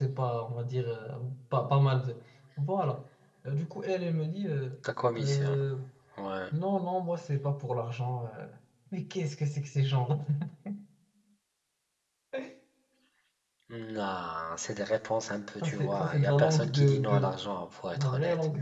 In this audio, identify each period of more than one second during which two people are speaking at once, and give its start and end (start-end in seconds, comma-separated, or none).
15.6-17.3